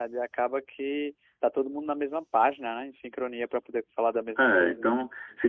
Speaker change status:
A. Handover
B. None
A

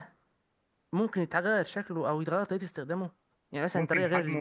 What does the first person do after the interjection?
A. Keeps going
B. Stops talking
B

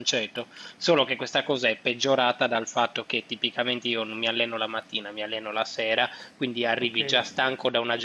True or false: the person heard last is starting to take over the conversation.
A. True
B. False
B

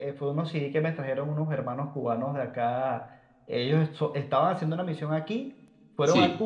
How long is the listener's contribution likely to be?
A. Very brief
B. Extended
A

